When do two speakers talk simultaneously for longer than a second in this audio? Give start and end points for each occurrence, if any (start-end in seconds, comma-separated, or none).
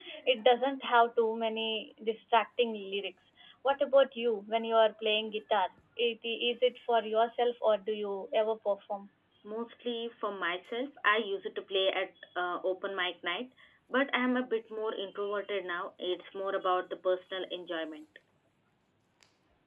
none